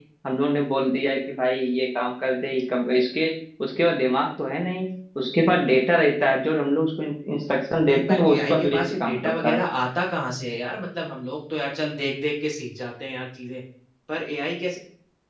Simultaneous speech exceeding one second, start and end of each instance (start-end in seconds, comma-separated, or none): 7.9-9.6